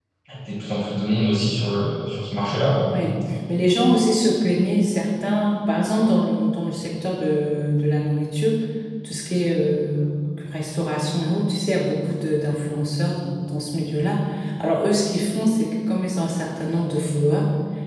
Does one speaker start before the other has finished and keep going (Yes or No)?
No